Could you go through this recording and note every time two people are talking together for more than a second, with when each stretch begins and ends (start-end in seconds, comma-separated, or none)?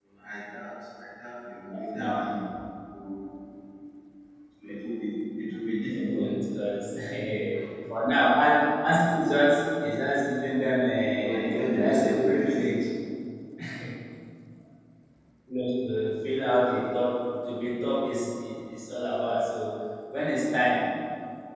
11.2-12.6